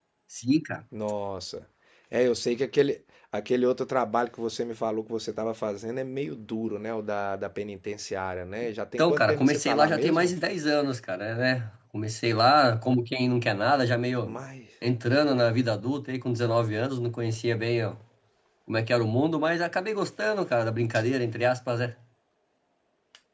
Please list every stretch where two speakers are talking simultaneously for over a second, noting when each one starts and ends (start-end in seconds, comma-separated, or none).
9.0-10.3